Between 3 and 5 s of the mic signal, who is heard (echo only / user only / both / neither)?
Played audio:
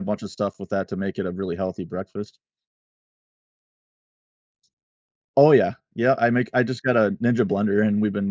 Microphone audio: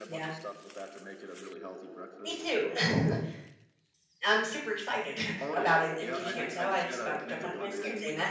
user only